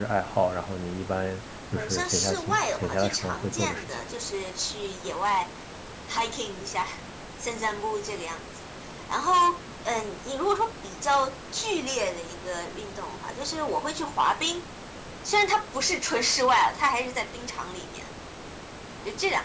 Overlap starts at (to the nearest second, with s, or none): 2 s